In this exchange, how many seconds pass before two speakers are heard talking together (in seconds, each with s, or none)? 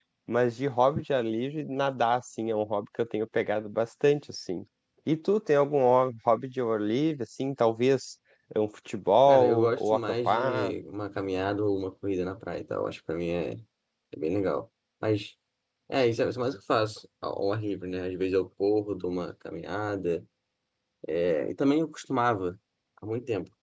9.3 s